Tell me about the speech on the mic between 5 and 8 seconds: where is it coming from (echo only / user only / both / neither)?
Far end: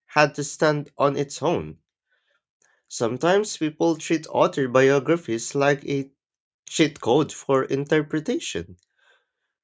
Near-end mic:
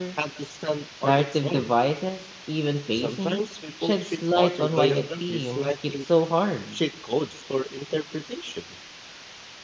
both